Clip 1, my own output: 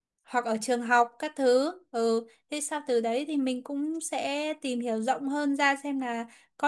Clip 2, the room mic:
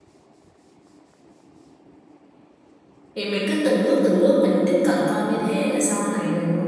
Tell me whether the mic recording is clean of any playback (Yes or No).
Yes